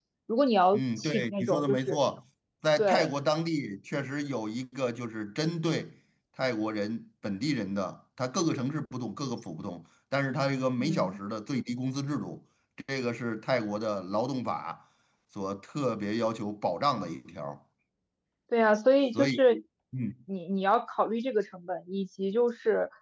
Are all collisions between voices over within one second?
No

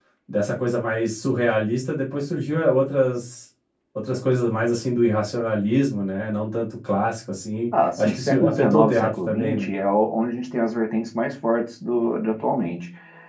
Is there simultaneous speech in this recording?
Yes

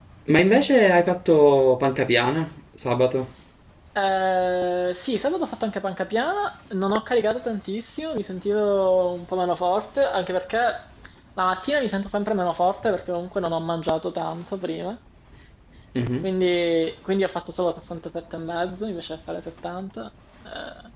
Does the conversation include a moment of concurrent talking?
No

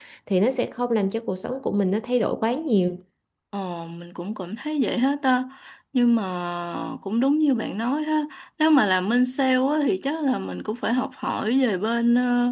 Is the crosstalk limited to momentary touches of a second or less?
Yes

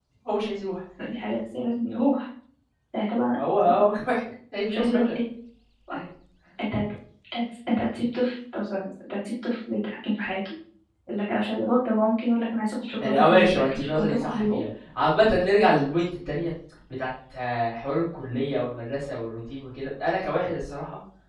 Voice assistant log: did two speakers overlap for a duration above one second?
Yes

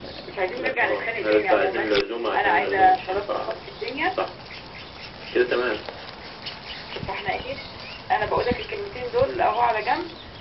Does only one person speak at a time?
No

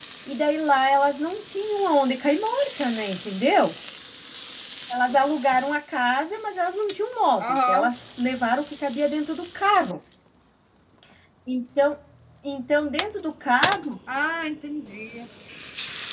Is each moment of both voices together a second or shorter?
Yes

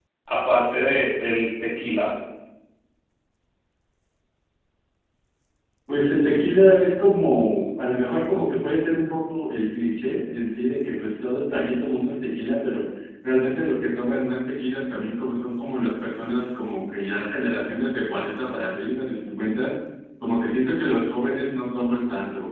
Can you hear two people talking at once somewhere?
No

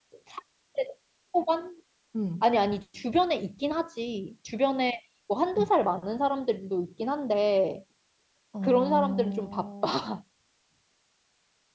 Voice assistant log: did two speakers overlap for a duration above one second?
Yes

